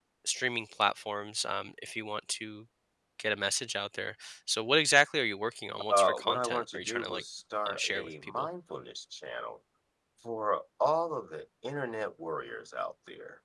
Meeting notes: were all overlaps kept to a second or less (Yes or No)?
No